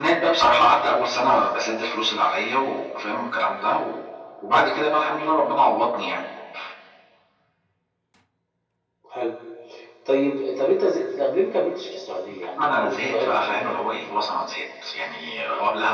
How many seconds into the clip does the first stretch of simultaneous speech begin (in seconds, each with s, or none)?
12.6 s